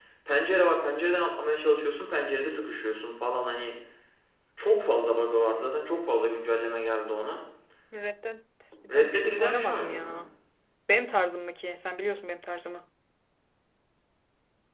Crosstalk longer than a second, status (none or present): present